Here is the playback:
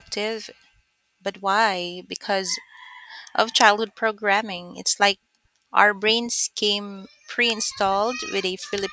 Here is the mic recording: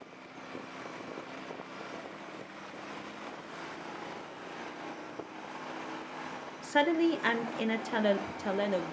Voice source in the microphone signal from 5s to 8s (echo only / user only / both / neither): user only